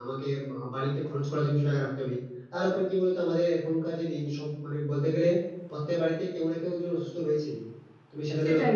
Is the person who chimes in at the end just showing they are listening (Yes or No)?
No